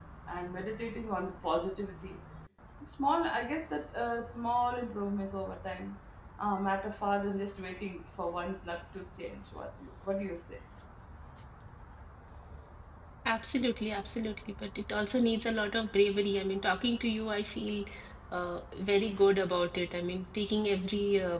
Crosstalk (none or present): none